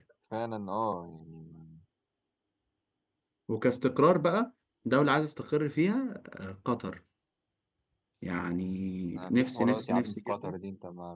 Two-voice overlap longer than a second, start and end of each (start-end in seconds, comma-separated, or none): 9.2-10.5